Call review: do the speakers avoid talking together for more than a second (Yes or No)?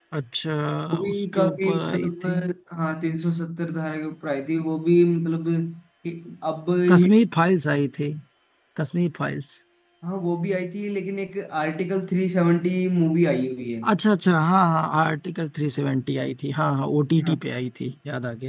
No